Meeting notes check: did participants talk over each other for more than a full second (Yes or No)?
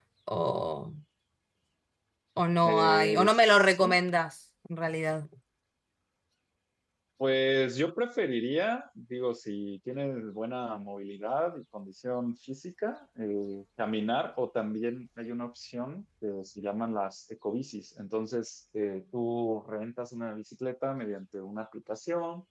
Yes